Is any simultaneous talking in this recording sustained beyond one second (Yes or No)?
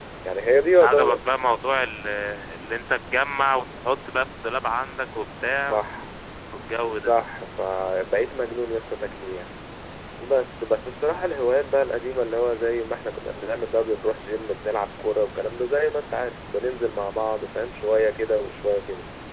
No